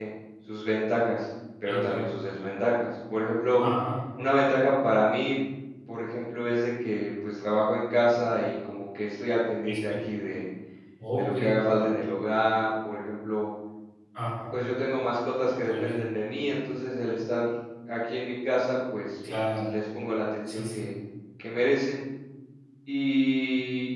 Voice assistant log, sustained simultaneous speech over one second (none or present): none